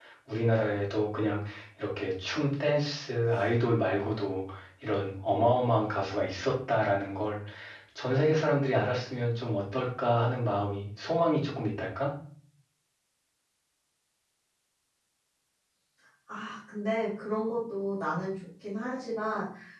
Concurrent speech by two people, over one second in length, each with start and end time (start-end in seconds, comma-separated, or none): none